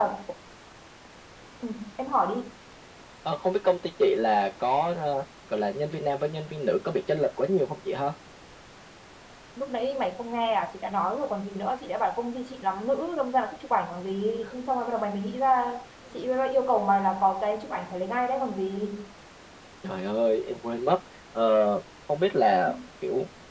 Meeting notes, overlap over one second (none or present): none